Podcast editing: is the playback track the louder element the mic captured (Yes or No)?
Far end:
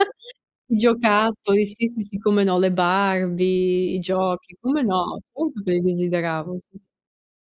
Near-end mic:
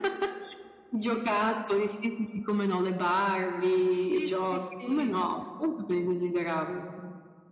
Yes